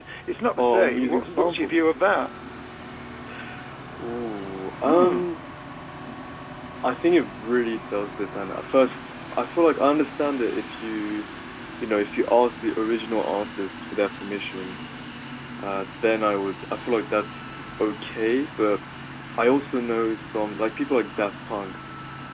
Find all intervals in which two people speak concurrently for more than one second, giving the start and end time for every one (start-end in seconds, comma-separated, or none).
0.6-1.9